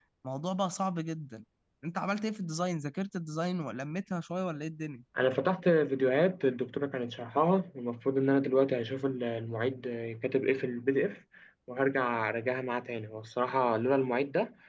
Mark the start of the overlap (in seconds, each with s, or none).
none